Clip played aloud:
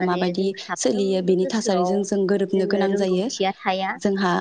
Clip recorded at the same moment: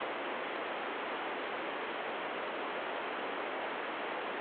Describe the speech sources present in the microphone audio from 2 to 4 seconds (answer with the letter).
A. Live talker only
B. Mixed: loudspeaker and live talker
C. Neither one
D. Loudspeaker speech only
C